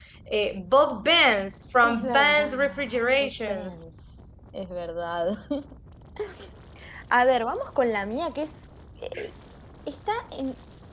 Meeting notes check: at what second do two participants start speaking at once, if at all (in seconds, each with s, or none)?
1.8 s